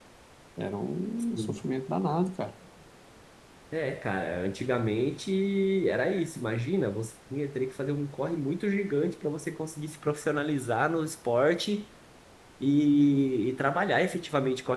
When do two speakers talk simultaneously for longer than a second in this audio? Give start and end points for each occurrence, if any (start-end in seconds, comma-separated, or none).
none